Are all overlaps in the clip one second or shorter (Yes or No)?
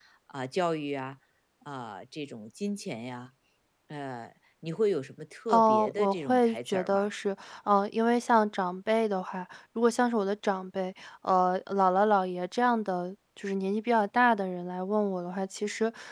No